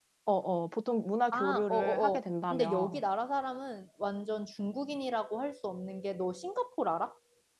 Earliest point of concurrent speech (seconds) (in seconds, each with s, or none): 1.3 s